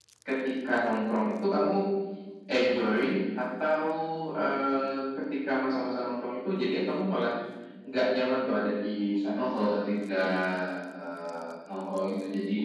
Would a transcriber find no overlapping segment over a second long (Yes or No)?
Yes